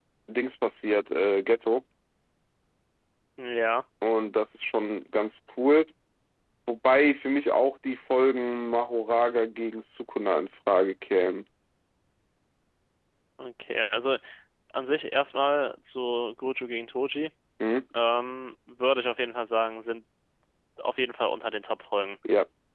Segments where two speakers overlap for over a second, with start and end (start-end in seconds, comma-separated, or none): none